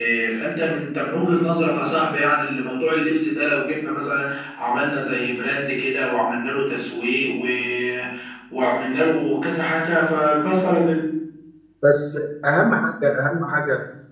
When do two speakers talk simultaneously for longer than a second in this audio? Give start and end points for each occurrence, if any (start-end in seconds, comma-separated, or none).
none